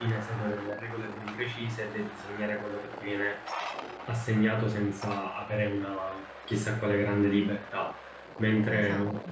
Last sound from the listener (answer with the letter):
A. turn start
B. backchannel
B